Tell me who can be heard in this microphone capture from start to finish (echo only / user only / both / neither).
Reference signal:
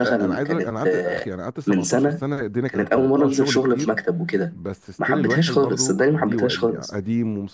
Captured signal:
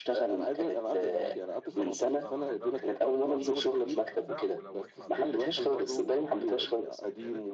both